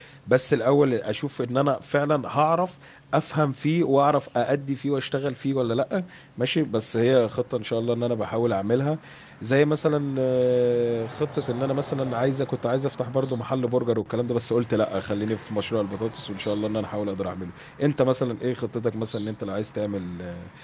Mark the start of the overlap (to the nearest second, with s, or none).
none